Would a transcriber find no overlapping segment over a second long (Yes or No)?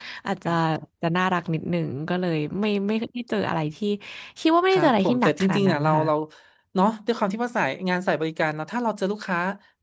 No